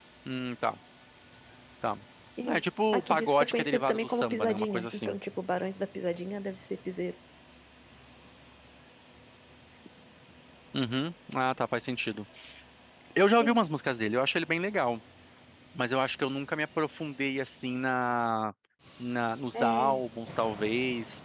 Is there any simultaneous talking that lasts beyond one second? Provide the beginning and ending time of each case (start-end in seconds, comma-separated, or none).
2.5-5.2